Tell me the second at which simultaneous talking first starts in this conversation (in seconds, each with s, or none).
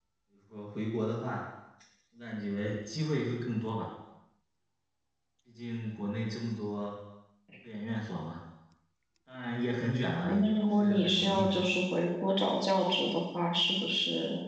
10.2 s